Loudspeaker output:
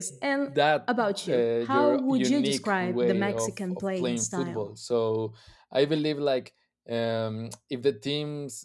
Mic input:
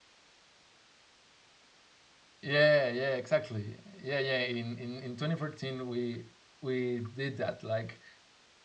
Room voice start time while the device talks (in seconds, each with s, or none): 2.4 s